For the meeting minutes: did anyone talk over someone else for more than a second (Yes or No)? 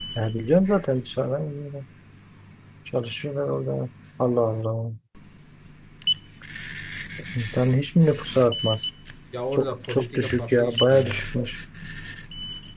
Yes